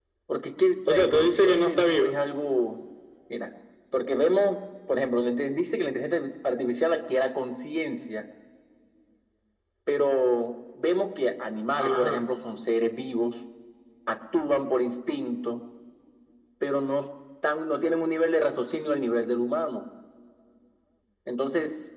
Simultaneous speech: Yes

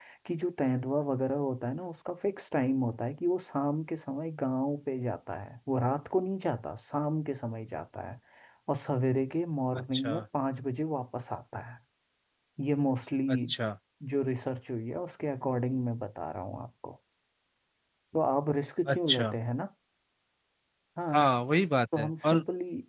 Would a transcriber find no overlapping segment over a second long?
Yes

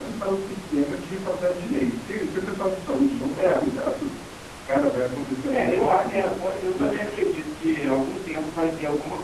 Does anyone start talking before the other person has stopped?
Yes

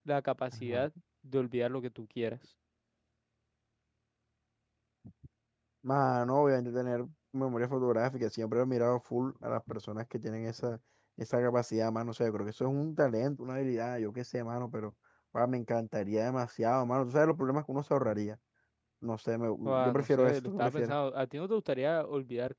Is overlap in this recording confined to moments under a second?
No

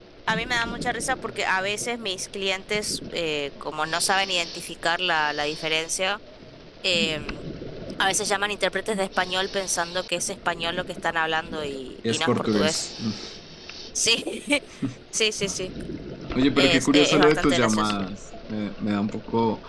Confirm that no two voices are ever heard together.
No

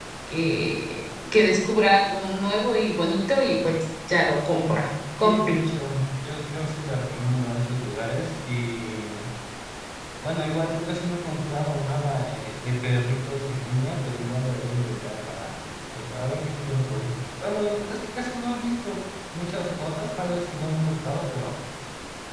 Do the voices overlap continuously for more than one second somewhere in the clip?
No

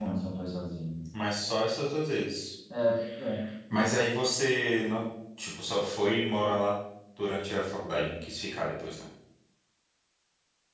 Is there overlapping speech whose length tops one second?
No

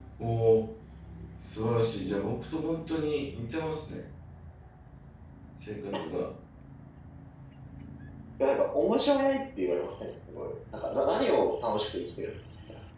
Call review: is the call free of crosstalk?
Yes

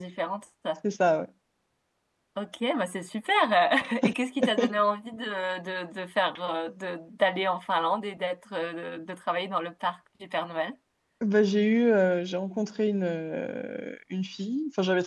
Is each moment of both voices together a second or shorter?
Yes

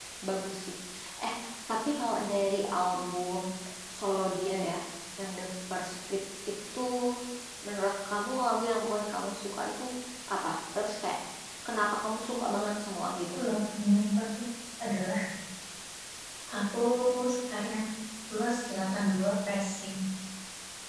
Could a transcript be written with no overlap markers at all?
Yes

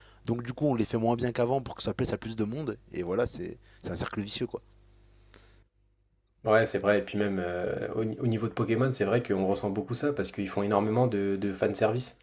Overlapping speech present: No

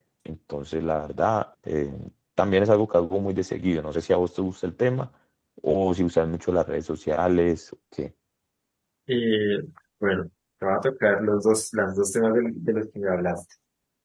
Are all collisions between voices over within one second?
Yes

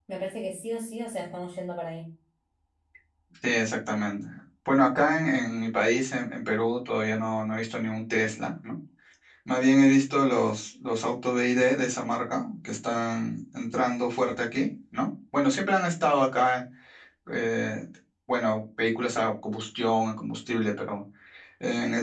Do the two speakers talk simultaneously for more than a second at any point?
No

